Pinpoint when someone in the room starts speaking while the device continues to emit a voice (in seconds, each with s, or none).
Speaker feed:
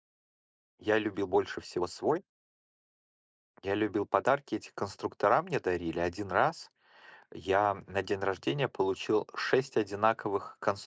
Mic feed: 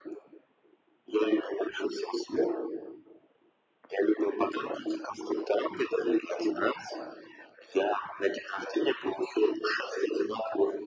none